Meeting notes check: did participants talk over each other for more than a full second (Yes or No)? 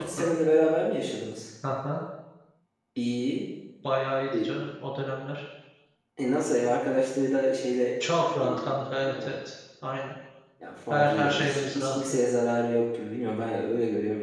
Yes